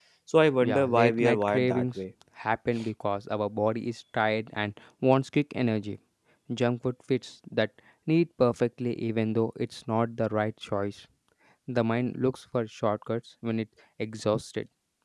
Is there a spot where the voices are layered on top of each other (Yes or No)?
Yes